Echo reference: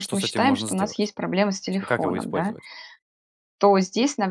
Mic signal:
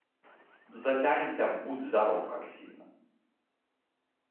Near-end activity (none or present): present